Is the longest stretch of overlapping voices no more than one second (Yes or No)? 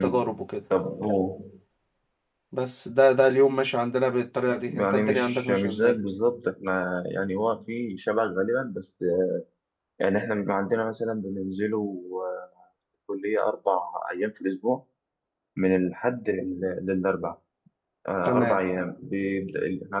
No